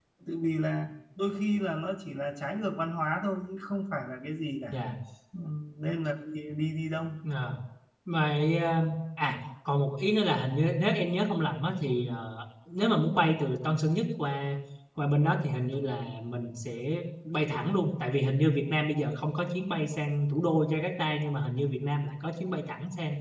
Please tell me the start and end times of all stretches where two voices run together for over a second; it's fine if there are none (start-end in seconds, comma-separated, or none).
none